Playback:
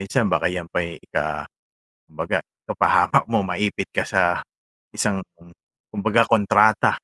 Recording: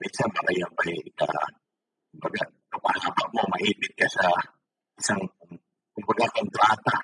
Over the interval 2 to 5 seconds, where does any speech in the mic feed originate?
echo only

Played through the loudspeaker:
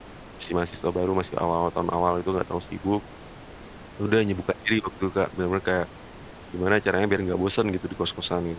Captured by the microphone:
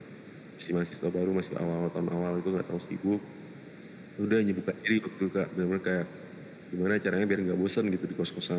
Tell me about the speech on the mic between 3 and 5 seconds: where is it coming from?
echo only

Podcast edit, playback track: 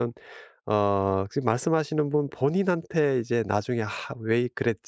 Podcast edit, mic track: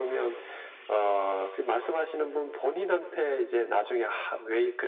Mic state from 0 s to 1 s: echo only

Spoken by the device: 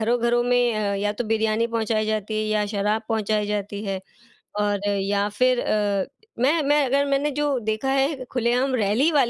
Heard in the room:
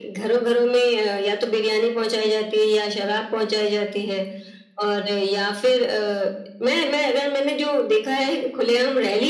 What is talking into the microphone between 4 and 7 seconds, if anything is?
echo only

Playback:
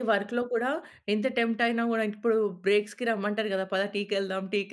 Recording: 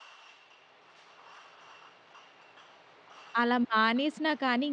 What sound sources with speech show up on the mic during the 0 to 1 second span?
neither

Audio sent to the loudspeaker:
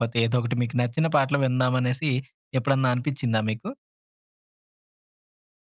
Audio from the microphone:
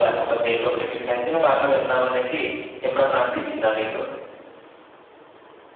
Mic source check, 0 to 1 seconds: echo only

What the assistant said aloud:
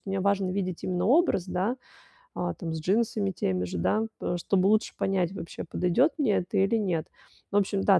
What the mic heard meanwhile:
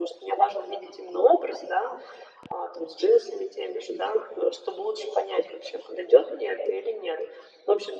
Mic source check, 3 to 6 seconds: echo only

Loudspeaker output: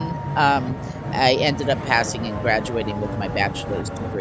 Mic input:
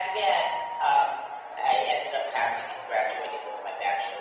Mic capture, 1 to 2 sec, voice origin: echo only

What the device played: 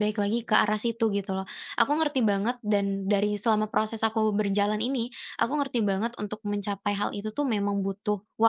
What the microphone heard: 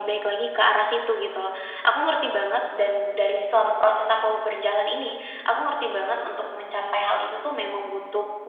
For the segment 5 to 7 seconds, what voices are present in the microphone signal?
echo only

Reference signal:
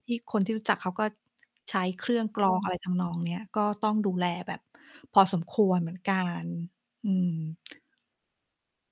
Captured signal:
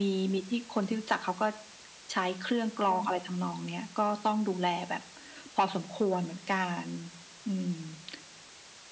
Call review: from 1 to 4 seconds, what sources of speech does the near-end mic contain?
echo only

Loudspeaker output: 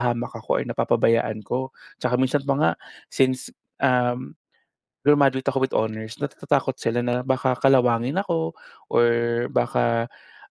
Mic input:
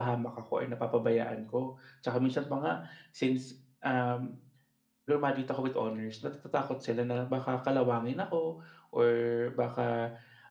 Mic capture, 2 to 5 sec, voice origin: echo only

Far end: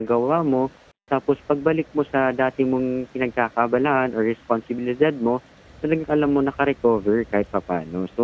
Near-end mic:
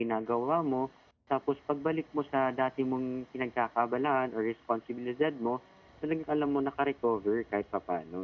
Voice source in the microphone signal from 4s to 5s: echo only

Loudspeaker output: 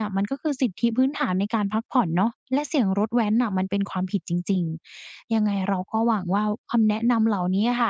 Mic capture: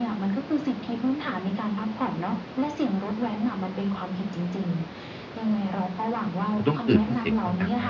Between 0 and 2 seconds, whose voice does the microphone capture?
echo only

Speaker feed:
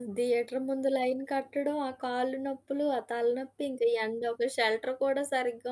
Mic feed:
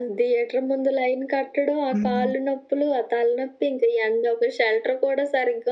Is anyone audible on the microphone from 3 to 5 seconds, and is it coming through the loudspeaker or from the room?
echo only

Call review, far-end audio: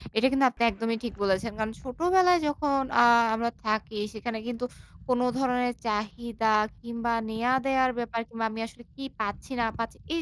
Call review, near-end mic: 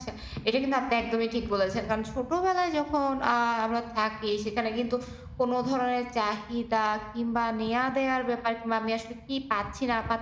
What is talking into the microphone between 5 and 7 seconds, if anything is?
echo only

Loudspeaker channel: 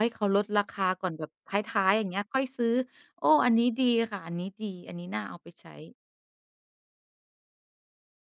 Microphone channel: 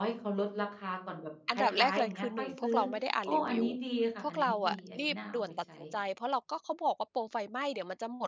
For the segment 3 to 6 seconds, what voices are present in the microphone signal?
both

